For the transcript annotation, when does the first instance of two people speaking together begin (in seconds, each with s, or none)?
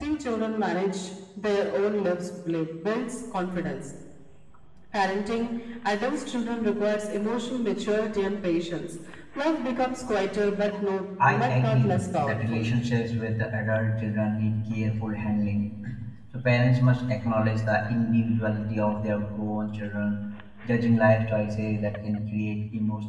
11.2 s